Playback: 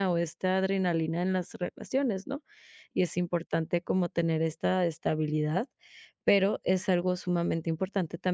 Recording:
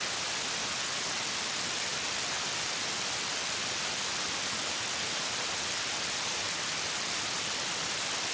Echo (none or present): none